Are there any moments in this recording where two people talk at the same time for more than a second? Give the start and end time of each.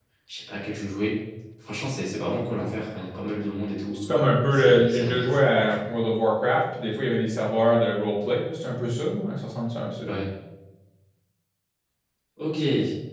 4.5-5.8

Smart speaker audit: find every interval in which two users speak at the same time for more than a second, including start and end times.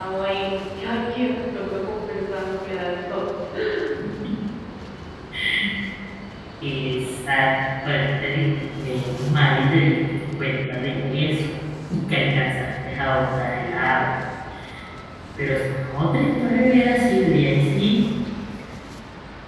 none

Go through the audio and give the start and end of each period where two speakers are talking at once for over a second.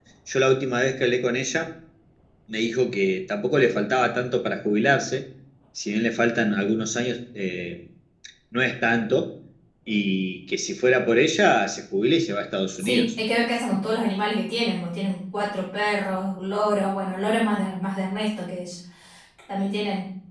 none

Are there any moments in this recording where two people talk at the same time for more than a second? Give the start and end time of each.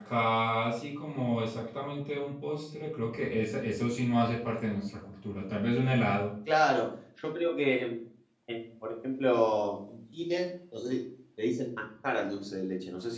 none

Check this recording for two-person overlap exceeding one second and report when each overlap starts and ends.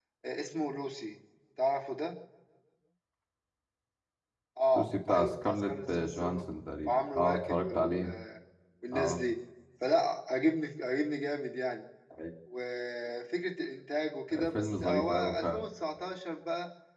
4.7-6.4, 6.8-8.1, 14.3-15.7

